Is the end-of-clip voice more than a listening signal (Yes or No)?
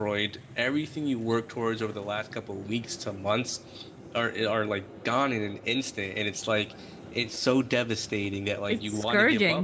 No